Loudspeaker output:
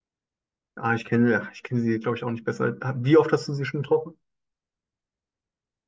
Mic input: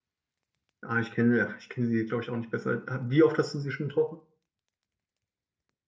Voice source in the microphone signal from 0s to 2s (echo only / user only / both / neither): echo only